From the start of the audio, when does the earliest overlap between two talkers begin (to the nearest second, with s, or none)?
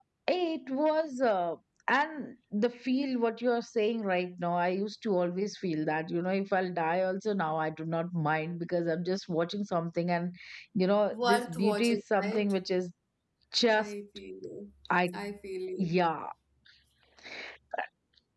11 s